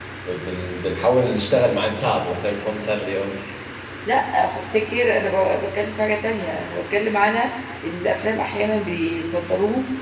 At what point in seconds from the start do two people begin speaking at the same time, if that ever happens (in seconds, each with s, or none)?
none